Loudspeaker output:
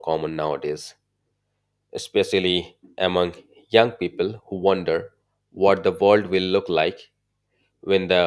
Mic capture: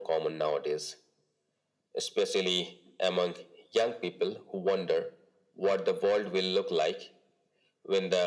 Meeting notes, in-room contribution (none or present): none